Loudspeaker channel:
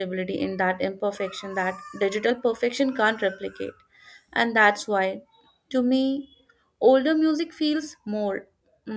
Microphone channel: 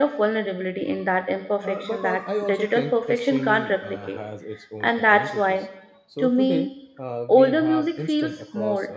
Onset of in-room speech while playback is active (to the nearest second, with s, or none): 2 s